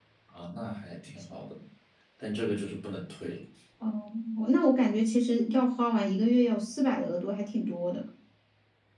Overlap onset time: none

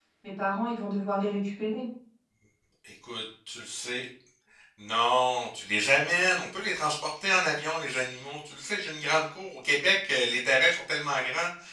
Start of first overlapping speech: none

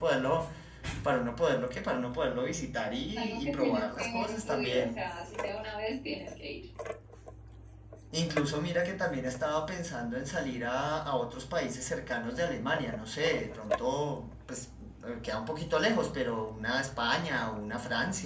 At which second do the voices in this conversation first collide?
2.9 s

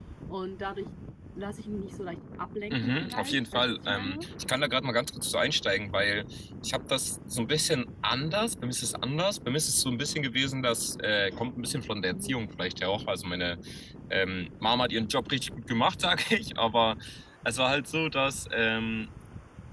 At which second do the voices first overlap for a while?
2.7 s

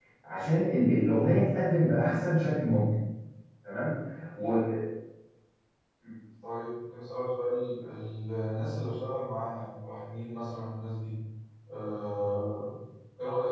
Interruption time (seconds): none

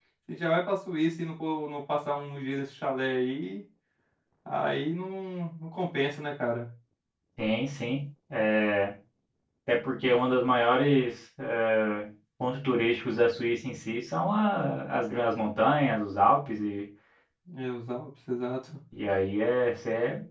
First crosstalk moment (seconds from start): none

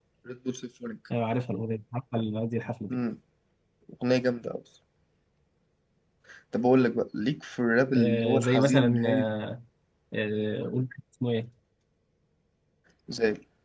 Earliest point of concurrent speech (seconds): 8.0 s

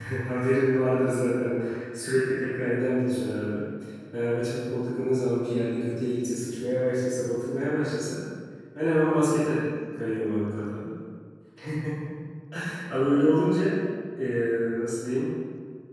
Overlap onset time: none

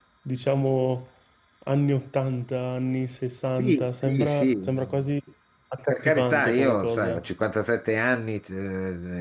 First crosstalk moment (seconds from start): 3.6 s

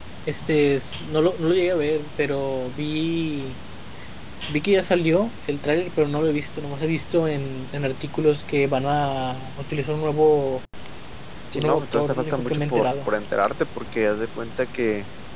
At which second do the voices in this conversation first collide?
11.5 s

